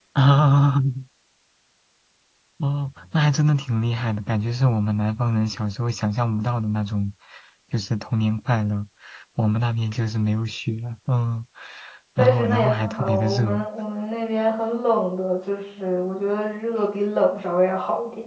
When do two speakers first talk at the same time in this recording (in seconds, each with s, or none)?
12.2 s